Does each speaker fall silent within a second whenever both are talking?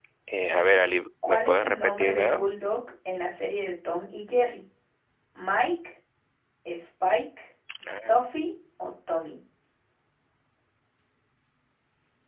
No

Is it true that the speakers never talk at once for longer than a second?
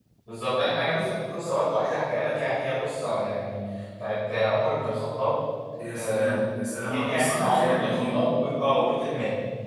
No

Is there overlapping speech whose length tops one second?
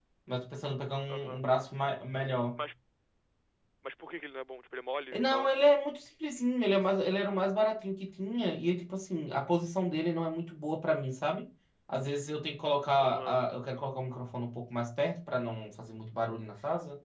No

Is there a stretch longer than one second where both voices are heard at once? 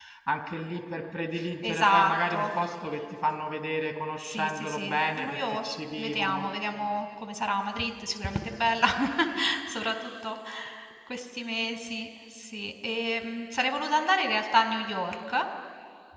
Yes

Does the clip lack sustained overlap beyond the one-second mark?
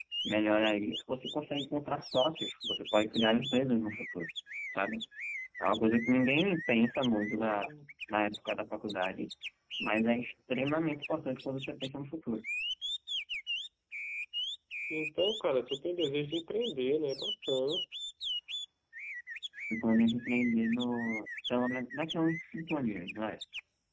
Yes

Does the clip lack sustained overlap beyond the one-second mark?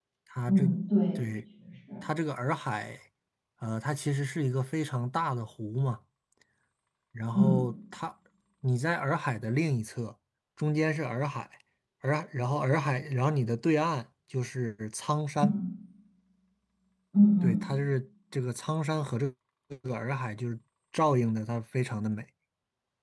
Yes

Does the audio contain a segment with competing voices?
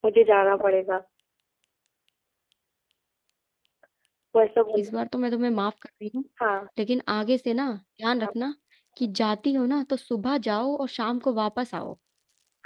No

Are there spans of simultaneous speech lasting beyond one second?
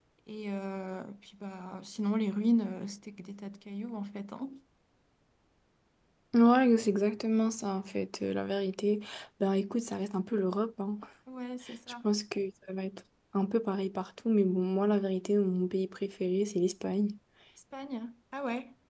No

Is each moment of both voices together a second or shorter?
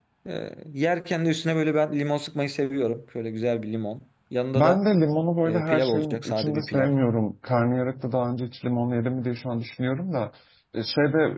No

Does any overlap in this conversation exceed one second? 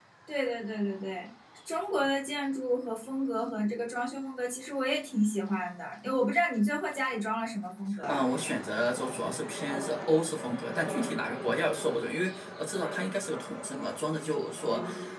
No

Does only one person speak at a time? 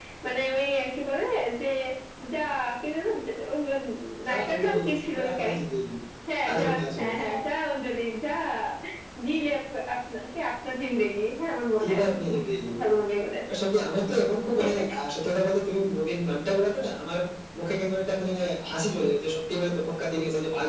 No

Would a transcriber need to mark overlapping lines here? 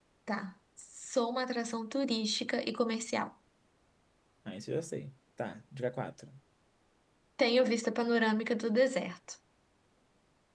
No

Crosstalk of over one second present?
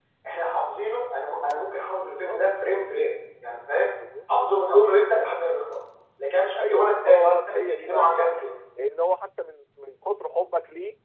Yes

